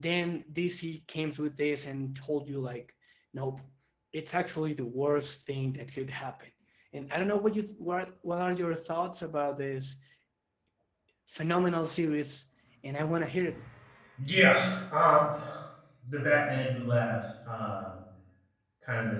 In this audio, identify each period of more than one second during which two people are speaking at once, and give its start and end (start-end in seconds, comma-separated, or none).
none